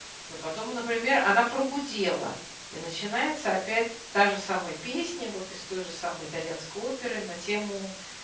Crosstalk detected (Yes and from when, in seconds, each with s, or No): No